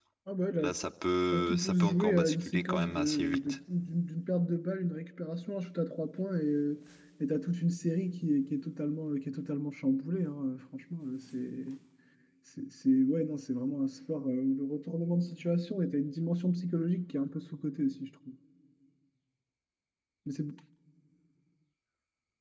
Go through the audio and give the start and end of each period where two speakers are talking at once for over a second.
1.3-3.6

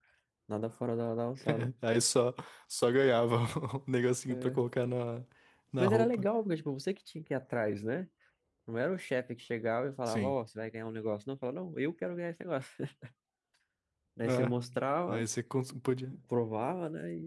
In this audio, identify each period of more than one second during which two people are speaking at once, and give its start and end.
none

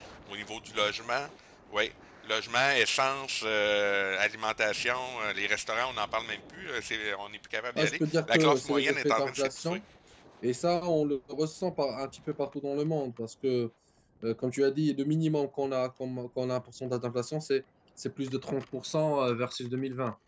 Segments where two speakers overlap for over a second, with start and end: 7.8-9.8

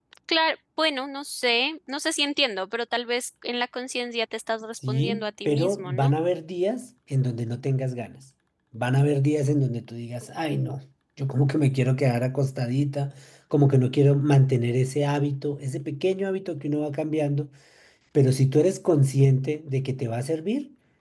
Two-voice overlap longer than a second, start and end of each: 4.9-6.1

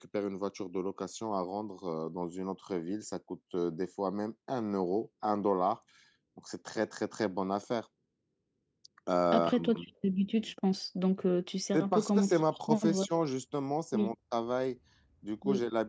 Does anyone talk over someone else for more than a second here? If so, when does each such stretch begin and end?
11.7-13.1

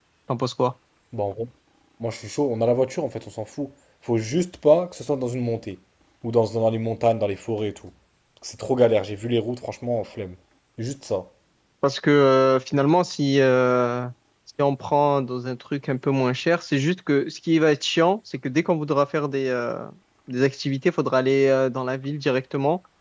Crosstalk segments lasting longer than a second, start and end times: none

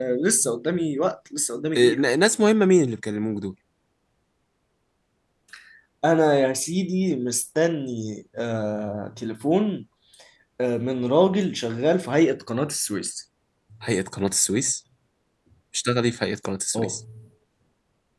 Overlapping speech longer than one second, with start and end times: none

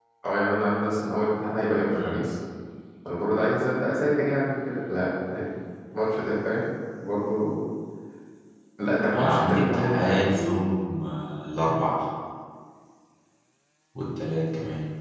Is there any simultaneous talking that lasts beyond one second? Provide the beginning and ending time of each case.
9.1-10.4

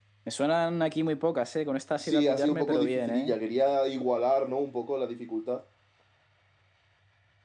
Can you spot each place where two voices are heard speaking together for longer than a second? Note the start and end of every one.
2.0-3.3

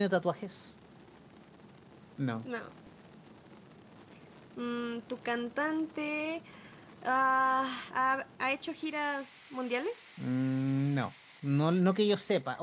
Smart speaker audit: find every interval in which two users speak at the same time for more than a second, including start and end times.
none

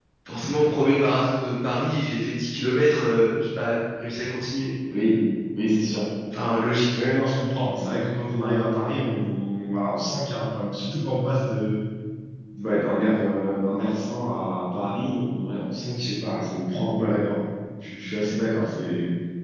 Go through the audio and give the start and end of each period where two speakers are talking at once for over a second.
none

